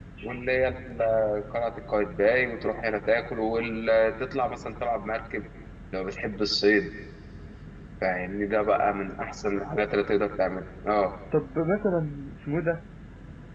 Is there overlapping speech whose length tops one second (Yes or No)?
No